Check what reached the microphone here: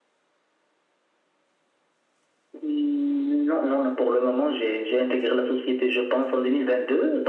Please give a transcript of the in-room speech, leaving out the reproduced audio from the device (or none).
none